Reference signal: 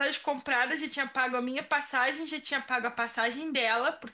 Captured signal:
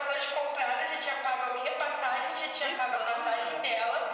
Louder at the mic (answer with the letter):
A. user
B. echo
B